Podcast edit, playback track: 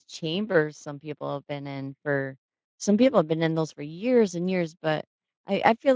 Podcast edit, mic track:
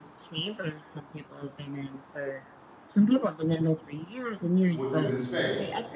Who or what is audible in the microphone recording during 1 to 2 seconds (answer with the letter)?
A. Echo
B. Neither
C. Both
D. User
A